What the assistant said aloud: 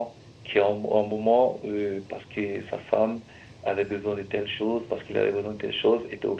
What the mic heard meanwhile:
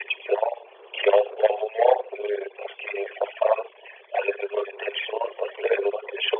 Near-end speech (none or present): none